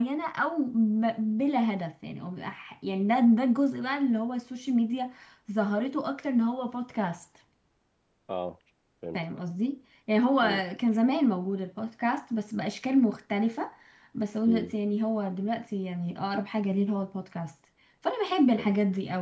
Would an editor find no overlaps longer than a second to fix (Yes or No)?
Yes